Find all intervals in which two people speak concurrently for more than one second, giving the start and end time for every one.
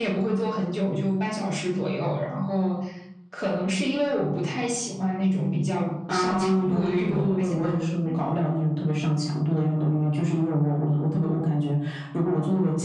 6.1-7.7

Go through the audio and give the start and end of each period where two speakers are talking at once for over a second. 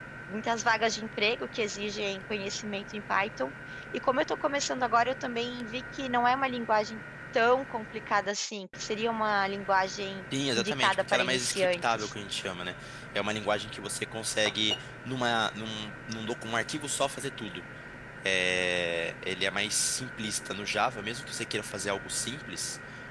10.6-12.1

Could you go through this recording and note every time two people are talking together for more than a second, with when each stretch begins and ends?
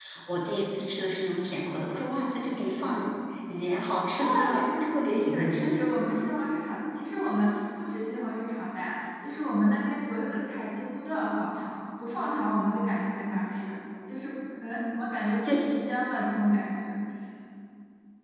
4.2-5.8

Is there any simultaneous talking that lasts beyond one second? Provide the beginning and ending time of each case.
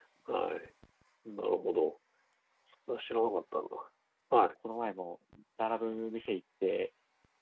none

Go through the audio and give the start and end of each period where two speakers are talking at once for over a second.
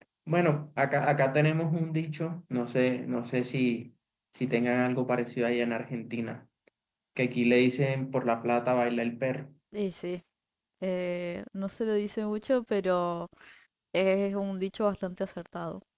none

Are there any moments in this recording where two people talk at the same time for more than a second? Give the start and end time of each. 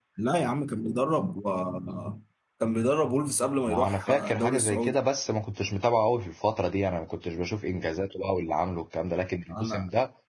3.7-4.9

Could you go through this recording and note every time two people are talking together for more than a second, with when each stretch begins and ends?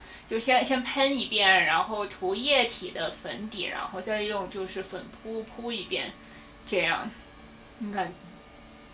none

